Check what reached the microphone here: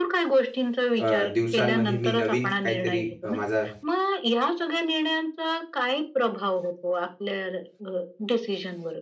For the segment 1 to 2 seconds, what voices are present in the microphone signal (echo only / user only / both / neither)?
both